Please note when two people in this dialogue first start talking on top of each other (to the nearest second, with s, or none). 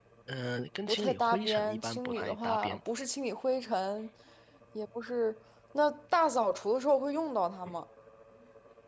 1 s